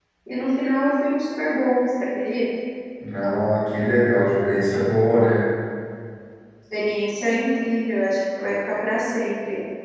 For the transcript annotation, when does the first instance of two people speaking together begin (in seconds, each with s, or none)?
none